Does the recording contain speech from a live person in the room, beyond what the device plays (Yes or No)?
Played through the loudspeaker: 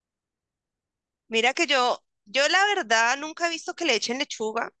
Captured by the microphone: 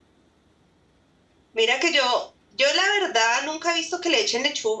No